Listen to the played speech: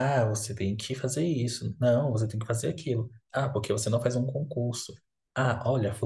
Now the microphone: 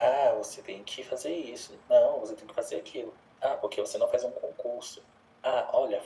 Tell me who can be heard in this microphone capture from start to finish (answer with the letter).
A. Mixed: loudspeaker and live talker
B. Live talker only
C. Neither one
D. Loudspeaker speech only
D